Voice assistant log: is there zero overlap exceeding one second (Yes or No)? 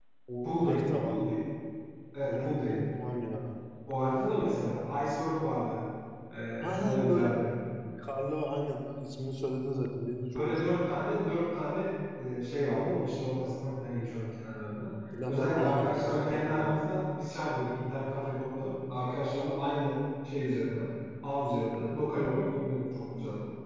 No